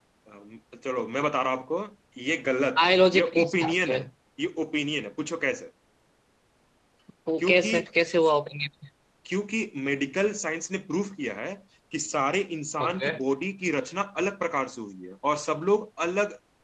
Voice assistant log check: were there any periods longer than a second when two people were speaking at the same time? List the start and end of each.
2.8-4.0

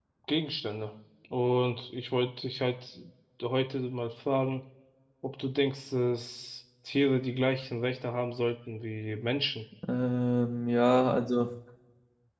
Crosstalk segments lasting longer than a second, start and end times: none

